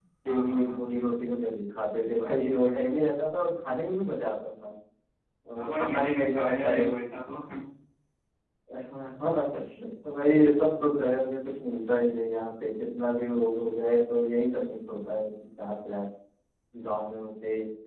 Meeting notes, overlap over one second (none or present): present